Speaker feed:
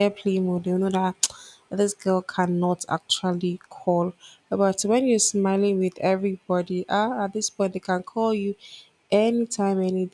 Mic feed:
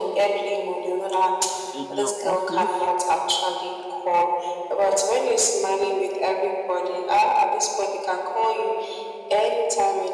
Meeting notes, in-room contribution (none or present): present